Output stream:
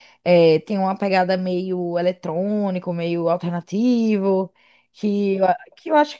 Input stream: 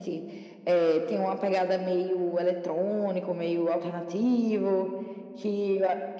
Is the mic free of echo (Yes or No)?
No